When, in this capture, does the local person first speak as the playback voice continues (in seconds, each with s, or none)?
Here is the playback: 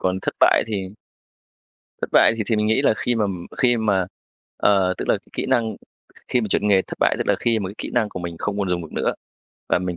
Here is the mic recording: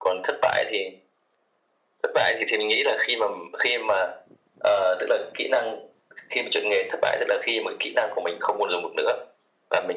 none